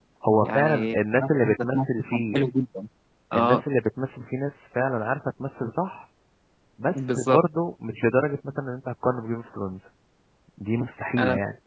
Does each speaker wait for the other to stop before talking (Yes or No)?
No